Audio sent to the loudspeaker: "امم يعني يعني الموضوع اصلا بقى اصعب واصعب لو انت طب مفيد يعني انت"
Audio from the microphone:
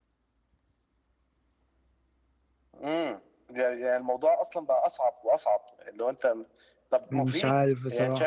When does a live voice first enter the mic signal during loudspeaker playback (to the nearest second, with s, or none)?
7 s